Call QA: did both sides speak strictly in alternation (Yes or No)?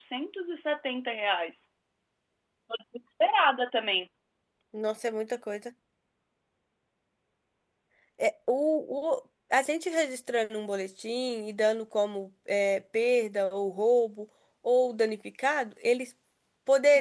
Yes